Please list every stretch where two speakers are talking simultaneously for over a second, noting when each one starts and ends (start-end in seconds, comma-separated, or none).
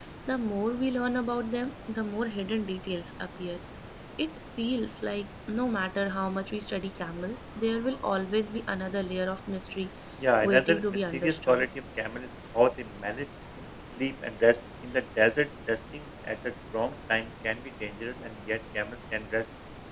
10.4-11.7